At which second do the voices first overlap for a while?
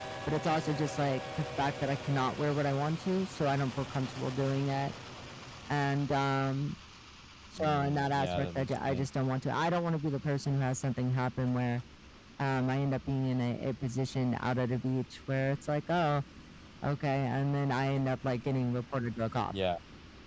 8 s

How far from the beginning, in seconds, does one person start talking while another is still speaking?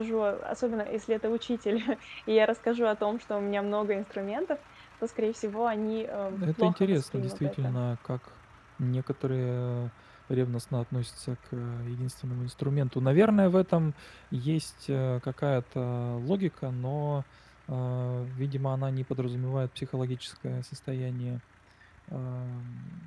6 s

